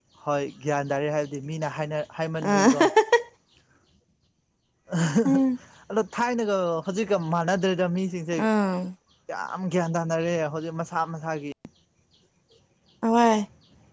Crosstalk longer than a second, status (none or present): none